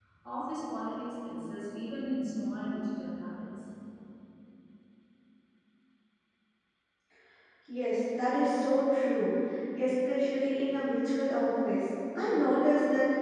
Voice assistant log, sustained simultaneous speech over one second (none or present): none